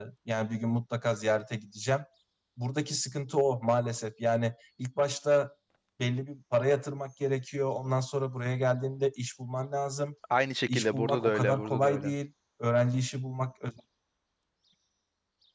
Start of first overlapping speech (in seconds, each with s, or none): 10.7 s